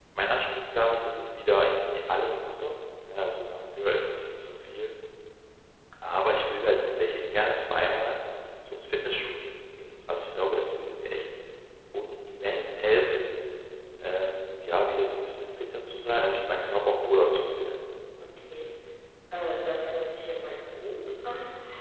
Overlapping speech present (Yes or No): No